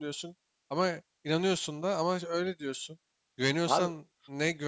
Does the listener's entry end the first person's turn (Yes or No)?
No